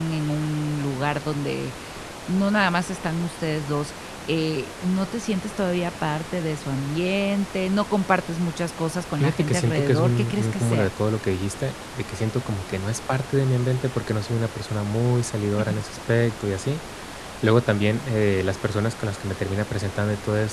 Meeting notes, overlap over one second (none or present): present